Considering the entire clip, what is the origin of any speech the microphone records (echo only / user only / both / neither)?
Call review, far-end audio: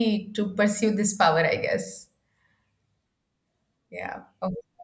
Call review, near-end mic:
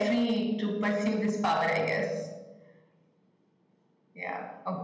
echo only